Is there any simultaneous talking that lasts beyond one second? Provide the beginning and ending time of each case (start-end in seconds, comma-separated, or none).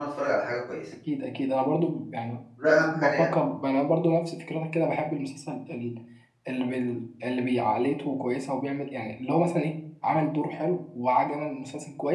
none